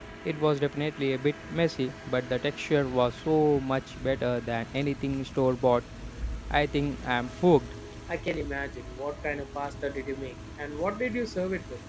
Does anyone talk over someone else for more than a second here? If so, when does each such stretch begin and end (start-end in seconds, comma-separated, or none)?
none